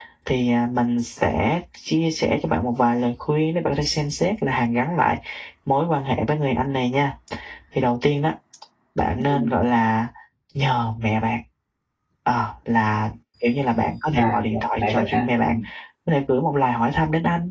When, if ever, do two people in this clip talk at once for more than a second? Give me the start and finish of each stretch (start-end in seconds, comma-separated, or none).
14.2-15.5